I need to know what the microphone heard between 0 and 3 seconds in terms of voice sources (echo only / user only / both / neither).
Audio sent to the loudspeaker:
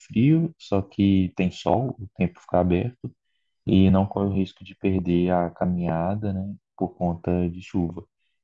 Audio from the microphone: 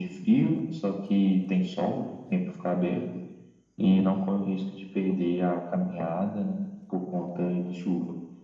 echo only